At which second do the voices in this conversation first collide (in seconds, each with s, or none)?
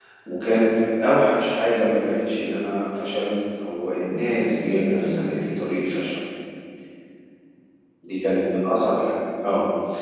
4.0 s